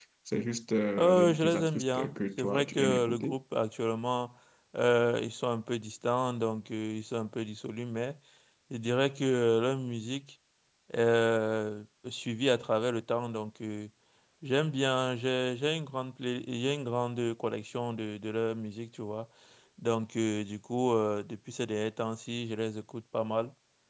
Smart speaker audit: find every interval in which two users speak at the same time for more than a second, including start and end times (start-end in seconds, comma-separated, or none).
1.0-3.3